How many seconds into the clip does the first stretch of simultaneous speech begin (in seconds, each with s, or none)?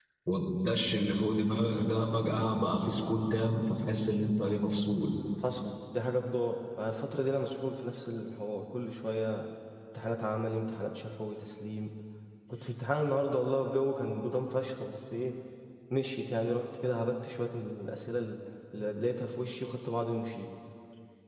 none